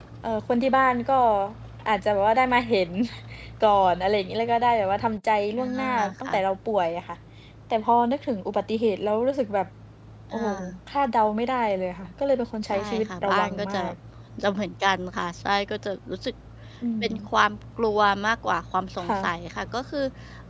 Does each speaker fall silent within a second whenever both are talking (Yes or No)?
No